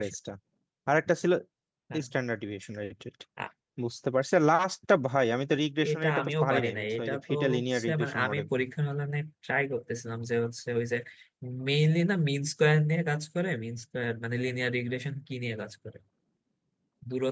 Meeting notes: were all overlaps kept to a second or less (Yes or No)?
No